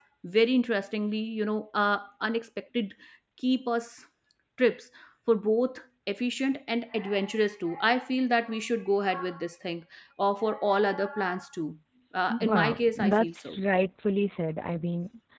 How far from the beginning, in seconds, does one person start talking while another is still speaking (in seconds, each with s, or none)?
12.3 s